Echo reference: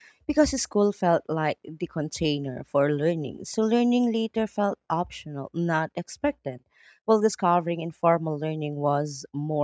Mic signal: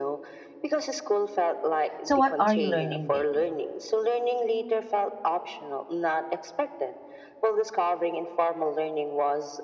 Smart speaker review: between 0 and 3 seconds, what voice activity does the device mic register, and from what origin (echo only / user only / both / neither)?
both